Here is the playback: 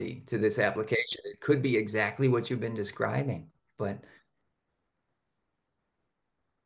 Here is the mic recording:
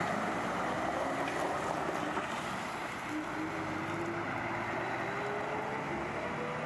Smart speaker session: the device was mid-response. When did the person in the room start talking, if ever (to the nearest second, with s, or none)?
none